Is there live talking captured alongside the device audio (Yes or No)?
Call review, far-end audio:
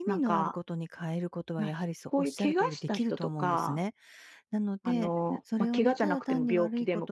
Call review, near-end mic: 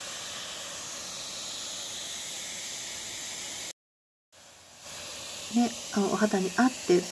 Yes